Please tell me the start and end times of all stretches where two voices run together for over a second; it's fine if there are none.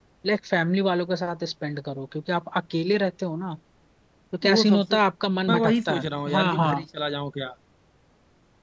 5.5-6.8

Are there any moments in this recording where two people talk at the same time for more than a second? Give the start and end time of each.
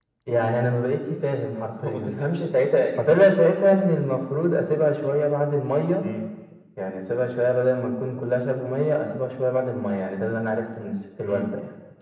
none

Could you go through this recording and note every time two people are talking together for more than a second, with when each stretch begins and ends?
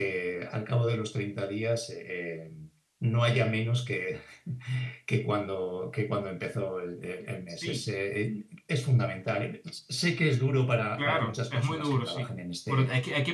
11.0-12.3

